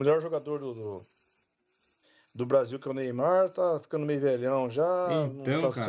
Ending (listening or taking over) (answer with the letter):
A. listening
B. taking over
A